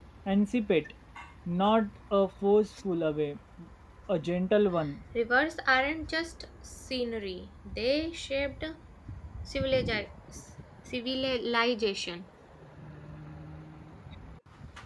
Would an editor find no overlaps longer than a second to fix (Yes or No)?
Yes